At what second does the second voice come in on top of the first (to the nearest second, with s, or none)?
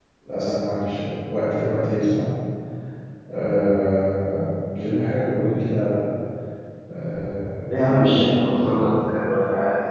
8 s